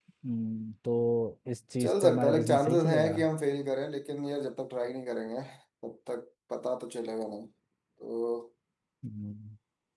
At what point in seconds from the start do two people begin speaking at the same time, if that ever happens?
1.8 s

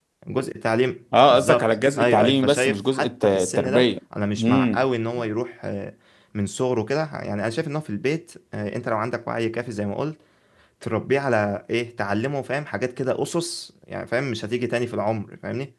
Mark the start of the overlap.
1.3 s

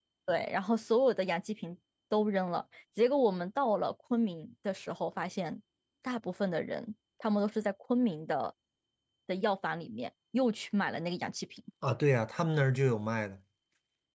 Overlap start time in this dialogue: none

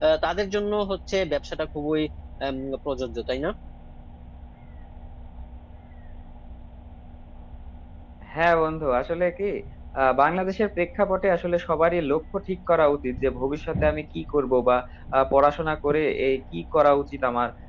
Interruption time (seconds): none

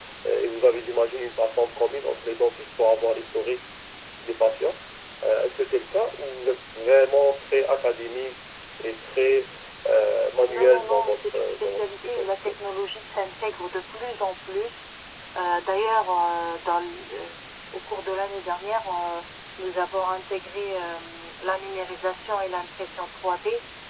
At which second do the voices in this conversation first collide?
10.5 s

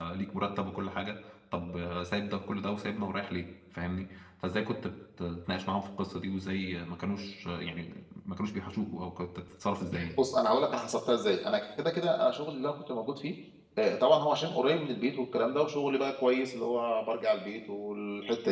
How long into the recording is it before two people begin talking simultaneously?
none

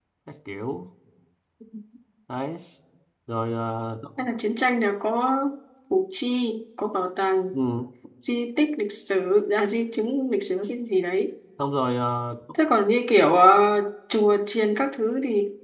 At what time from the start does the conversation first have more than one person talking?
none

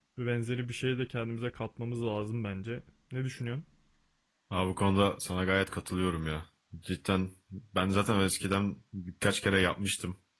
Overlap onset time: none

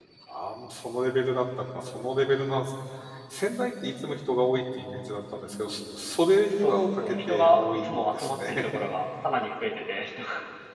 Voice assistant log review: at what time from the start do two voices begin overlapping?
6.6 s

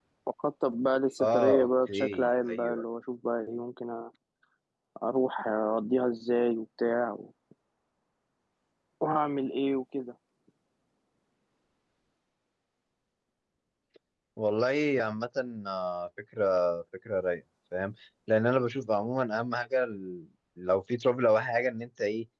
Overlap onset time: 1.2 s

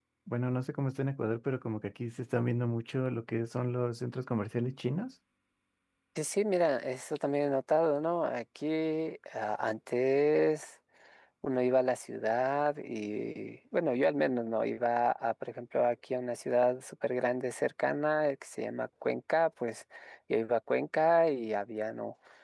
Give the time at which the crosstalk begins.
none

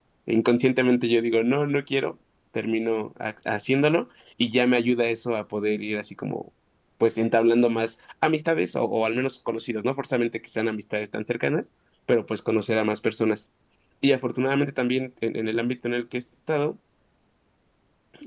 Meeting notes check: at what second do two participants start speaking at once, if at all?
none

